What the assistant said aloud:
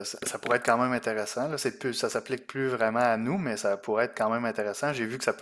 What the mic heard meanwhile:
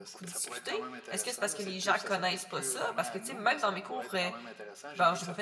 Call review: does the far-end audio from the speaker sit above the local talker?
No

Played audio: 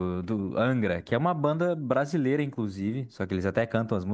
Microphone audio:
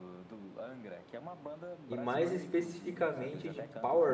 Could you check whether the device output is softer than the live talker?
Yes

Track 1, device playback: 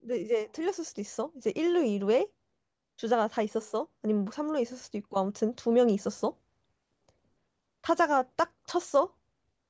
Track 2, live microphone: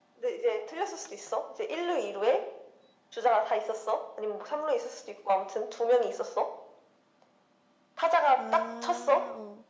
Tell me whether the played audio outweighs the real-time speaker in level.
Yes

